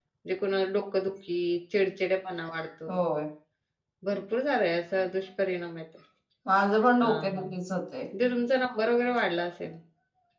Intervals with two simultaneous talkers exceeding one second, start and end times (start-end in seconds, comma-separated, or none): none